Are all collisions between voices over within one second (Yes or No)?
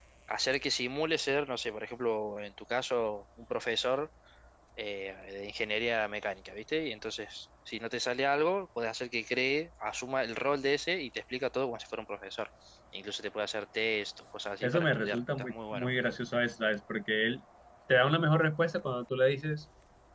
No